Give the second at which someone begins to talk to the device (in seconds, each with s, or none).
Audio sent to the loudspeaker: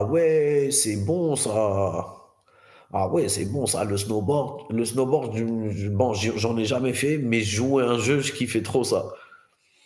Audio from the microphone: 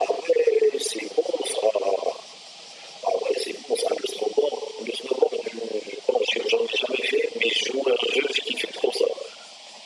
none